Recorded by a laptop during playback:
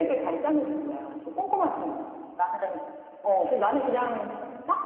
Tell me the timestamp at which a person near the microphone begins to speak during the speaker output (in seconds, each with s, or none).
none